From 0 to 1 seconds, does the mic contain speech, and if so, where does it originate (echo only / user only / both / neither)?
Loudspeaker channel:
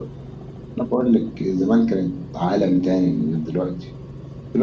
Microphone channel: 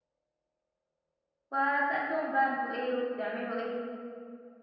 neither